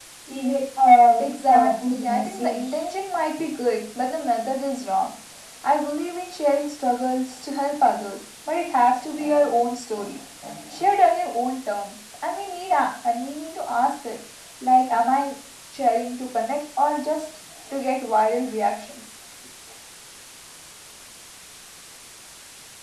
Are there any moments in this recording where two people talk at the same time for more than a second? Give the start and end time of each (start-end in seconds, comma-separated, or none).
1.2-2.9